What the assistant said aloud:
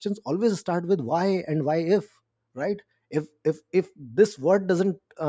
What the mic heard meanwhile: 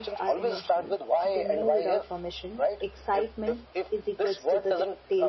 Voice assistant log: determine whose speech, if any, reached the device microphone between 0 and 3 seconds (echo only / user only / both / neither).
both